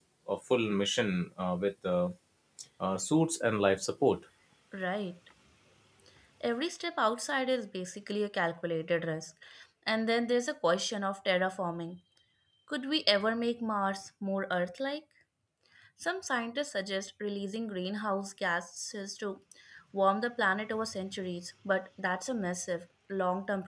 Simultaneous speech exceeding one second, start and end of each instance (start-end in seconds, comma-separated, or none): none